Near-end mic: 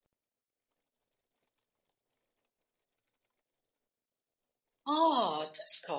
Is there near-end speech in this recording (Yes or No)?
Yes